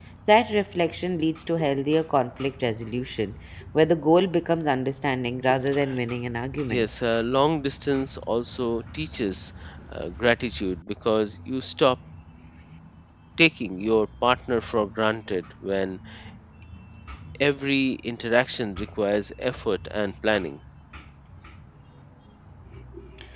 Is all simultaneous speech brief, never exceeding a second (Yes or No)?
Yes